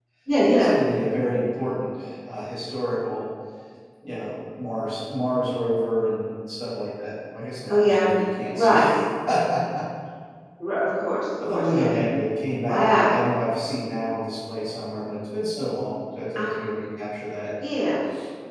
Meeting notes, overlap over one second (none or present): none